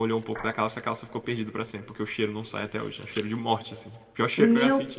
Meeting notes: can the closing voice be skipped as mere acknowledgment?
No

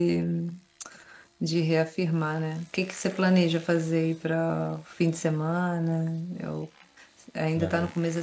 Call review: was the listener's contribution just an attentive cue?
Yes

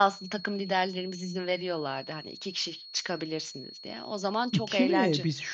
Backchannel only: No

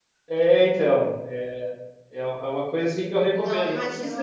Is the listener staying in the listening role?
No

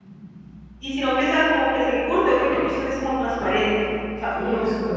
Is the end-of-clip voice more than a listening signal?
Yes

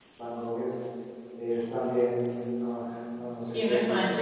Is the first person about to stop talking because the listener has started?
Yes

